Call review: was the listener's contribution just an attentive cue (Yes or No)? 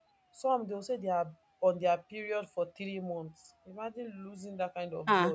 No